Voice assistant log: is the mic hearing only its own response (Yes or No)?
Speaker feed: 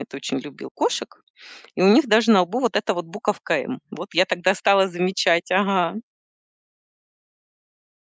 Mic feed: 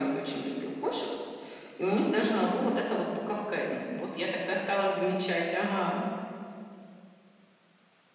Yes